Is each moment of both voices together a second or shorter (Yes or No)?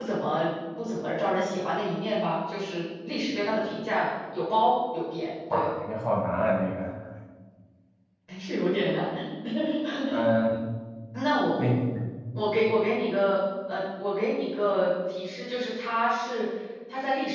Yes